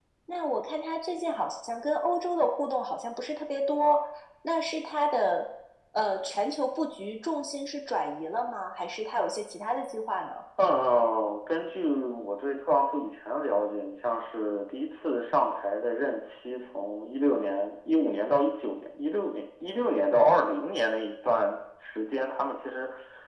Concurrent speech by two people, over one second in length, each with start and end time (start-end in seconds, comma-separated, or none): none